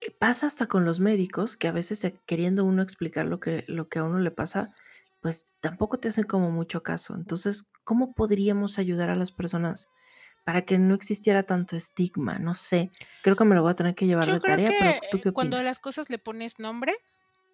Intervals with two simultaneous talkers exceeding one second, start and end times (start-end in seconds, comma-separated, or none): 14.2-15.8